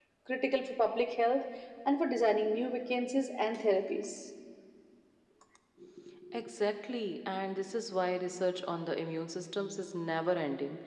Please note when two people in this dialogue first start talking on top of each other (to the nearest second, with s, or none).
none